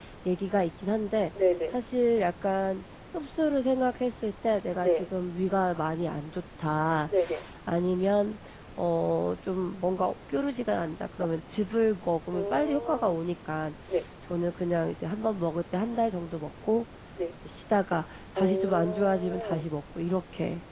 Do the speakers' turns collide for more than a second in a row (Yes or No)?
Yes